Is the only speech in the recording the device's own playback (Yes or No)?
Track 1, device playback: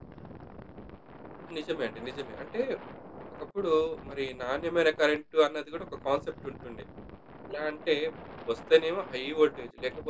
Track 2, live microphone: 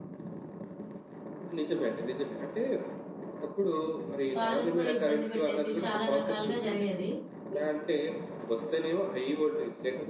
No